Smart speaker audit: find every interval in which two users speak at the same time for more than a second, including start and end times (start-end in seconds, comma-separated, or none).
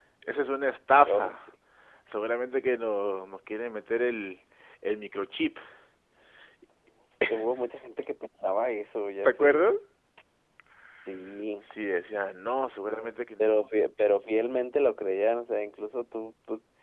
none